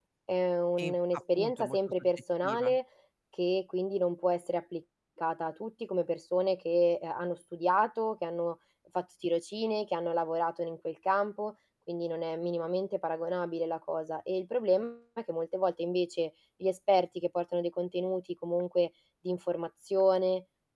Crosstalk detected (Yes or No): Yes